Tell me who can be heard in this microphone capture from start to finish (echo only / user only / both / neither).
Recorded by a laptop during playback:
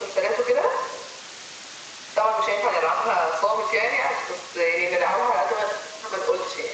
echo only